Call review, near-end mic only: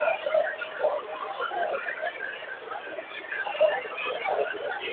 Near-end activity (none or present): none